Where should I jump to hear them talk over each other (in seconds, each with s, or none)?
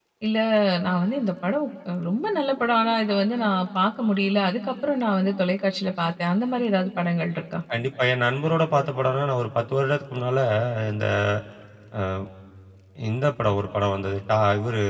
none